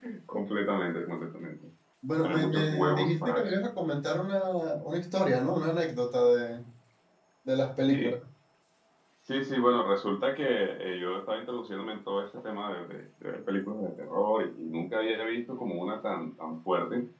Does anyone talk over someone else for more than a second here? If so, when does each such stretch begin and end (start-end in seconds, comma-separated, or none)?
2.2-3.6